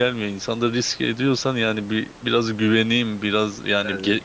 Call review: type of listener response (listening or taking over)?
listening